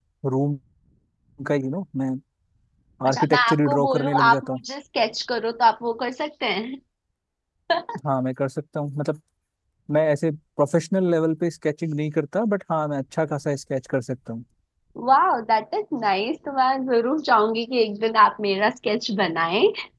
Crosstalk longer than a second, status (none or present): present